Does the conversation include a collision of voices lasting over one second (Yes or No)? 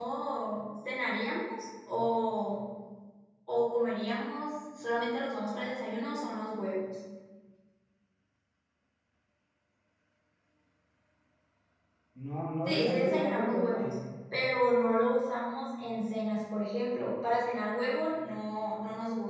Yes